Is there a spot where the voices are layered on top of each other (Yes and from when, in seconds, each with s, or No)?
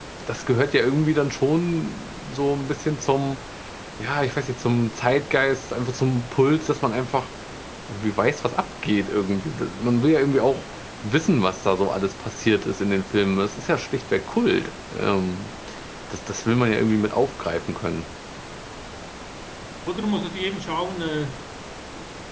No